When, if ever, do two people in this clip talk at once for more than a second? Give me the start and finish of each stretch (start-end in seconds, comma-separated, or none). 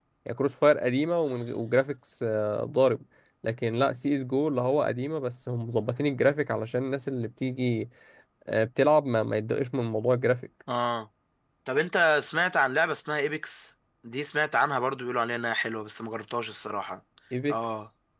none